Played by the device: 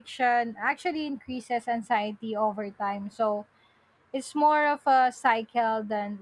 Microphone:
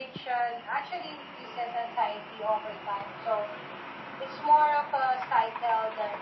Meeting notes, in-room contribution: none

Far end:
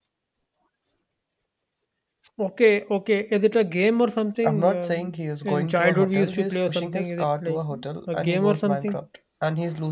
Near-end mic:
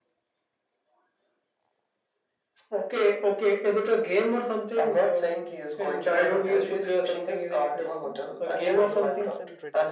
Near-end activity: present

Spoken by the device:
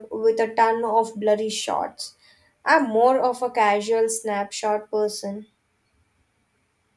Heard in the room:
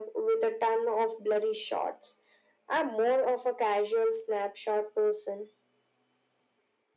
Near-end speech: none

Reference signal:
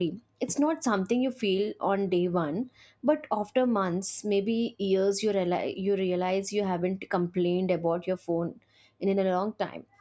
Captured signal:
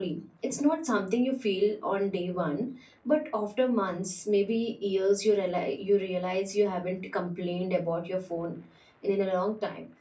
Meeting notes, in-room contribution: none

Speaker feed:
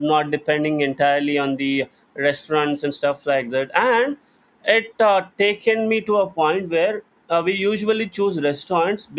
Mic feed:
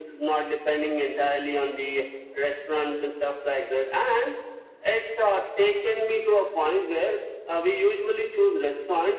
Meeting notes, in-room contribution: none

